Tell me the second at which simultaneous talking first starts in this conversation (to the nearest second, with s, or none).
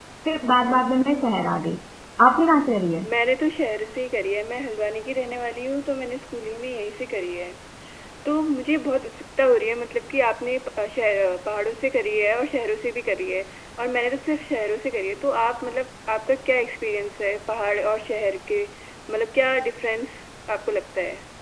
none